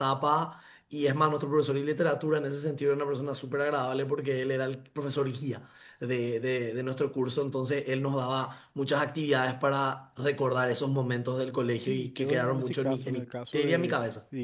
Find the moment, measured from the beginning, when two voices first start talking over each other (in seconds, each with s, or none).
11.8 s